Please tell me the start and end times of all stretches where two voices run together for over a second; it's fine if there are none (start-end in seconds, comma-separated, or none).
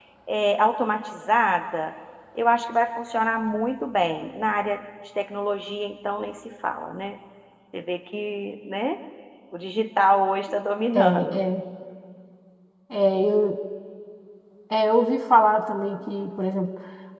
none